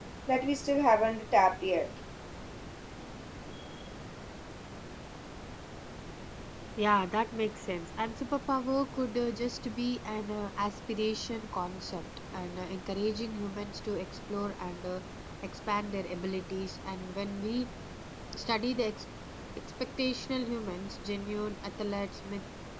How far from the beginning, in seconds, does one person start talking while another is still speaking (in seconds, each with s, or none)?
none